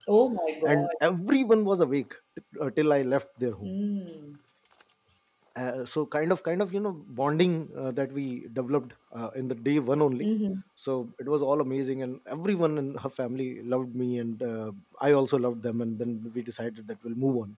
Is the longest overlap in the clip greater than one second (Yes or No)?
No